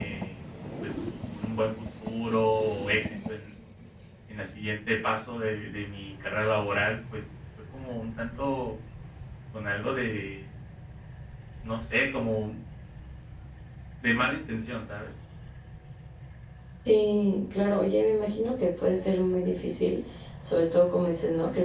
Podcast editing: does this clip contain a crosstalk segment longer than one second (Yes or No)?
No